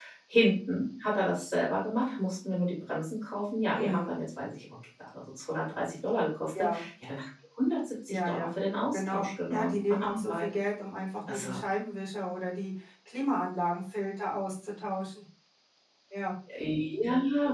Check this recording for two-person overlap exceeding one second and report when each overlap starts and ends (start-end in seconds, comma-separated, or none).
8.9-10.4